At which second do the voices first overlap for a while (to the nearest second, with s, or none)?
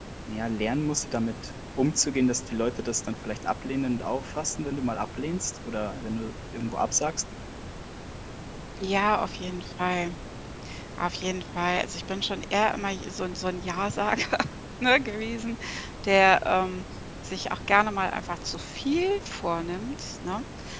none